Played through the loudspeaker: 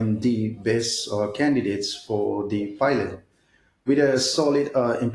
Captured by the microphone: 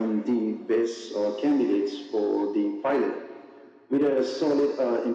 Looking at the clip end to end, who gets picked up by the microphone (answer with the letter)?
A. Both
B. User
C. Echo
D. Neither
C